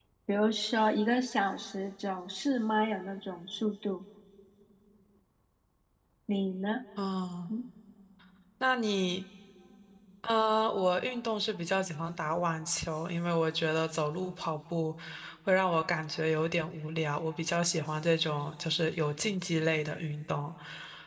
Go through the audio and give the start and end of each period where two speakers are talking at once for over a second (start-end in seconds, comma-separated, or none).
none